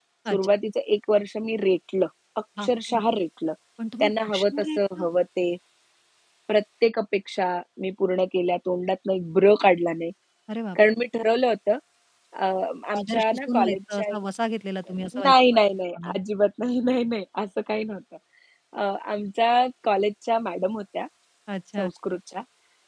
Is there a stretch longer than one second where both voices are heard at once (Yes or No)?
Yes